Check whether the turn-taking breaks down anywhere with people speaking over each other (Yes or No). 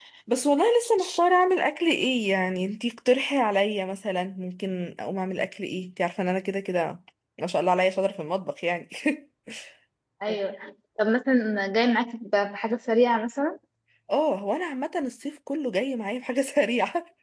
No